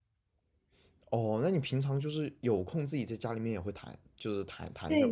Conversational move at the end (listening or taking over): taking over